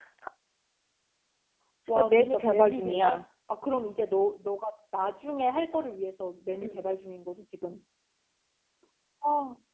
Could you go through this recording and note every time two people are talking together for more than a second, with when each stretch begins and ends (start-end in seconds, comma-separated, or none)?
1.9-3.2